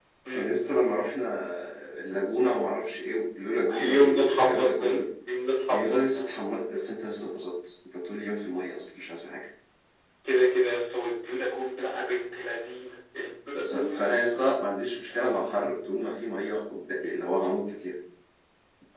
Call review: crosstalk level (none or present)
present